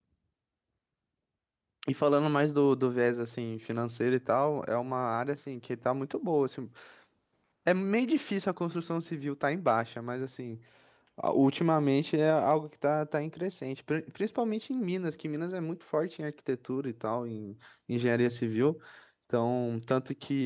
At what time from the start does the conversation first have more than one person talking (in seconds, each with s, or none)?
none